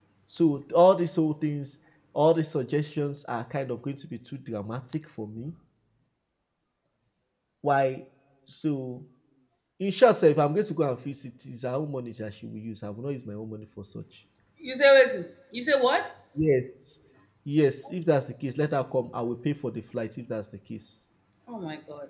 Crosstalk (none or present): none